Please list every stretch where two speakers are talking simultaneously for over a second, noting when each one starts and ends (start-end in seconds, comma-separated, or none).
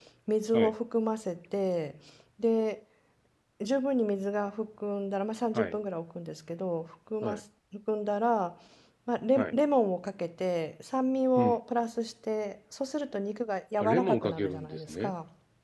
13.8-15.1